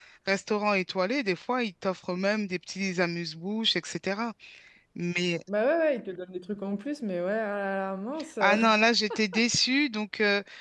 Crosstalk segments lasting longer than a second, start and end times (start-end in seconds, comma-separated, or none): none